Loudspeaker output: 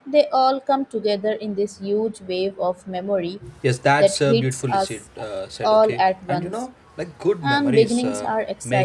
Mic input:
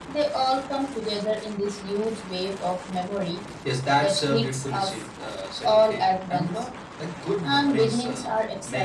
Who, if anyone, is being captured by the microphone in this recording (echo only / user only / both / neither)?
echo only